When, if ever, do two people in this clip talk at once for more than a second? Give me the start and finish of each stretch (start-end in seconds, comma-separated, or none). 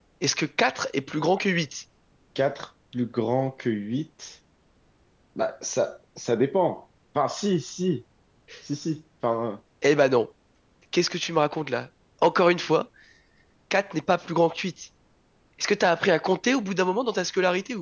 none